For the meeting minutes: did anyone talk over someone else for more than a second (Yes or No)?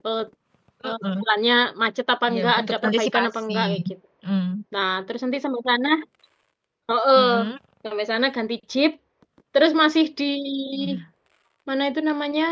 Yes